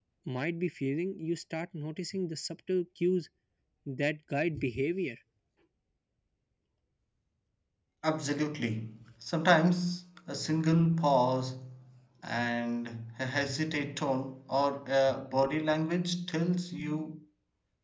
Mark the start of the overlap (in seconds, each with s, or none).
none